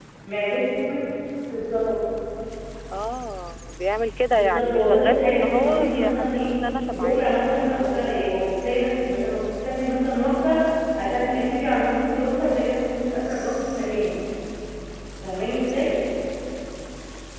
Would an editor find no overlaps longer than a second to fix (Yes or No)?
No